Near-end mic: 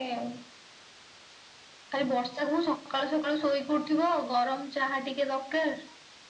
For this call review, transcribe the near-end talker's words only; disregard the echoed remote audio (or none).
none